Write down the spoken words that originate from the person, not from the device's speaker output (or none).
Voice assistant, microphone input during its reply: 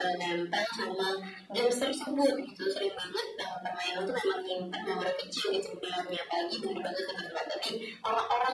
none